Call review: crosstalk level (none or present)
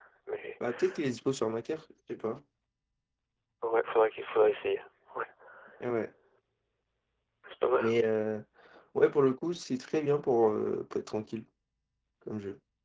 none